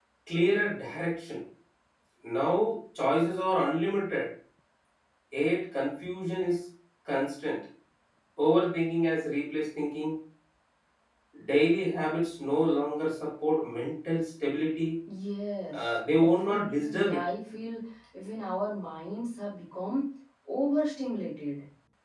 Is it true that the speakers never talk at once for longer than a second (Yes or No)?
No